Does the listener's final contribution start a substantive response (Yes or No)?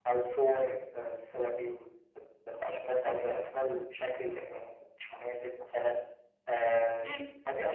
Yes